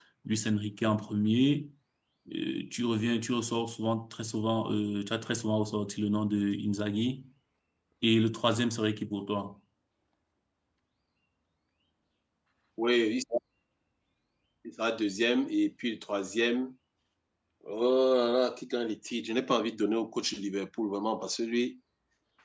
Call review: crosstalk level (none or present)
none